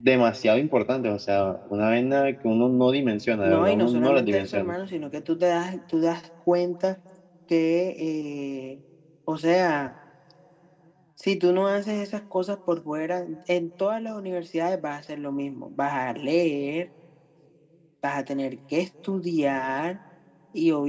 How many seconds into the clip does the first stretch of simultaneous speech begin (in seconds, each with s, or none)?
3.4 s